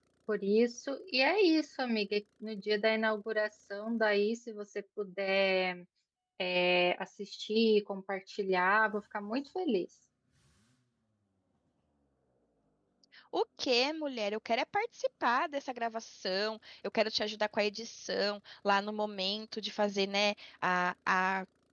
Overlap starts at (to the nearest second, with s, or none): none